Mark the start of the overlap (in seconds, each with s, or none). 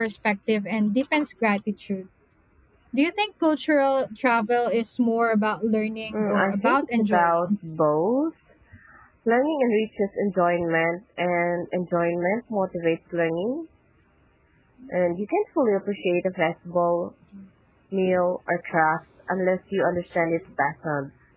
6.1 s